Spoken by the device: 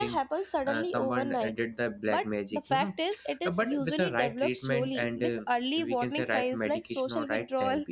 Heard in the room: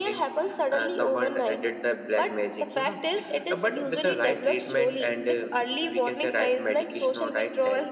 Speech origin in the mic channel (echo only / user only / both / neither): echo only